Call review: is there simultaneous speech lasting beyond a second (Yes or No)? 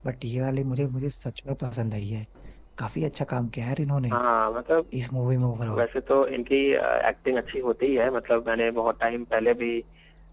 No